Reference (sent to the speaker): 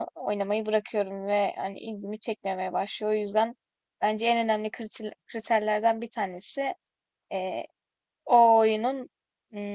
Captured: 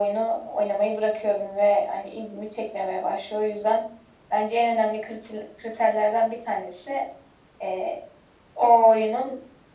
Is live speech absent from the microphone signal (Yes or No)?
Yes